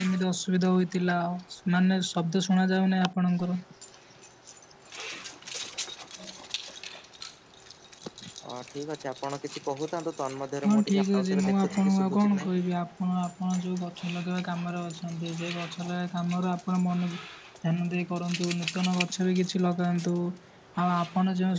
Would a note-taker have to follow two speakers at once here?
Yes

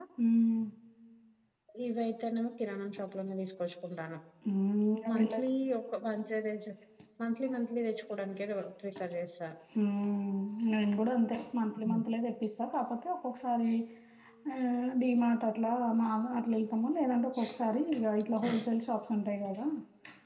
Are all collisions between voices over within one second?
Yes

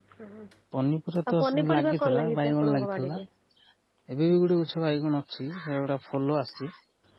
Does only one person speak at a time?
No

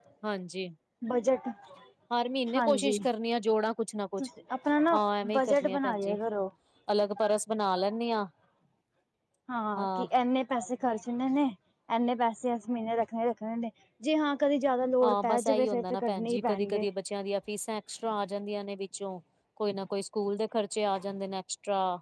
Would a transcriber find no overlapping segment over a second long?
No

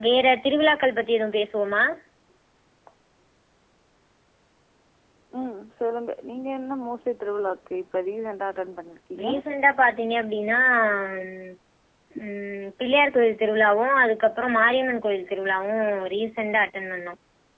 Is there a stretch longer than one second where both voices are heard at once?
No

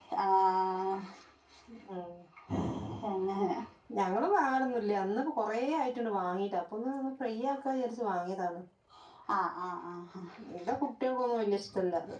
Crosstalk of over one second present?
No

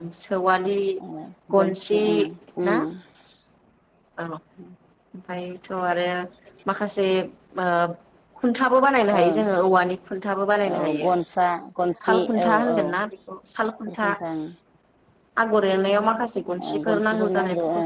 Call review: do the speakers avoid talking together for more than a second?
No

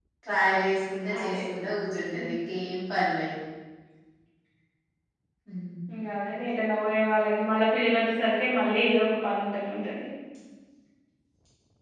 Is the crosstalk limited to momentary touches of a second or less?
Yes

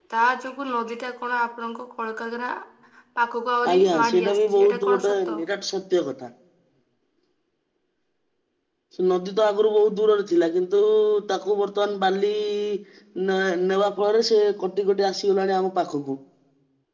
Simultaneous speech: Yes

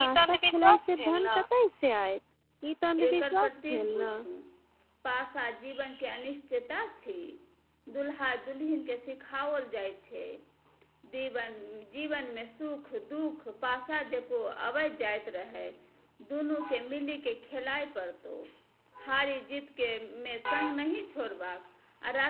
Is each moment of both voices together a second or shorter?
No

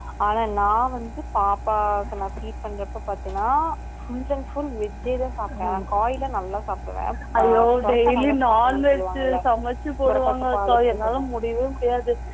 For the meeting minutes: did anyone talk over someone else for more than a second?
Yes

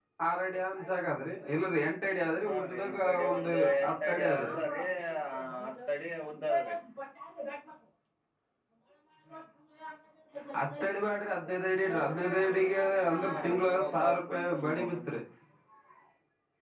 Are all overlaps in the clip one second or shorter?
No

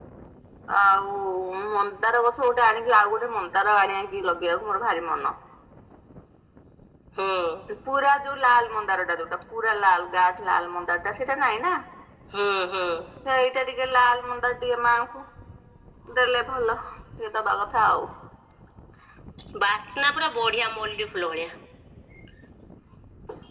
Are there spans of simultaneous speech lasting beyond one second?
No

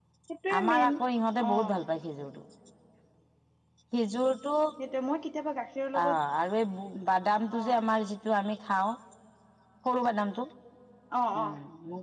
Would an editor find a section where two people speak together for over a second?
No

